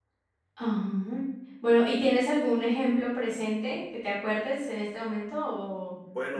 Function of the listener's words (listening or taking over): taking over